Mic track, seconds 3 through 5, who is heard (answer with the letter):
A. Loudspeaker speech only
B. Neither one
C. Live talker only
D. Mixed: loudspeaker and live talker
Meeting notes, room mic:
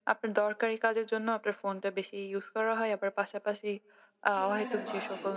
D